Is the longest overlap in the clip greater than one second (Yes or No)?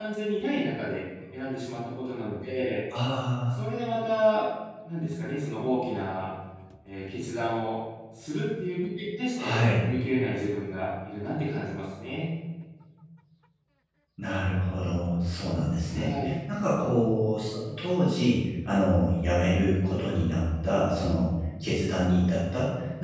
No